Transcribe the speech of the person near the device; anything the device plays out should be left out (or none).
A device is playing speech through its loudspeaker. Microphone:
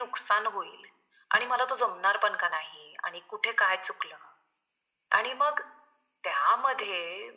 none